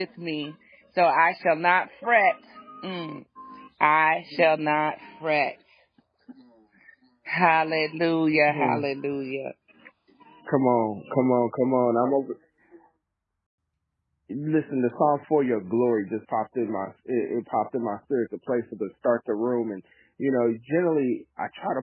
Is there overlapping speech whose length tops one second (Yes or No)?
No